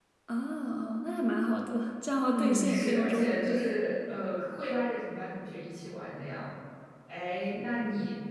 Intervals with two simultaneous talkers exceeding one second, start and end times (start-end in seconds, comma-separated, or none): 2.3-3.6